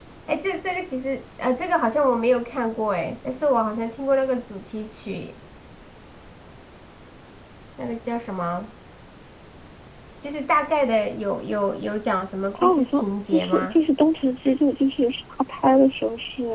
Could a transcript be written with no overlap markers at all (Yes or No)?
No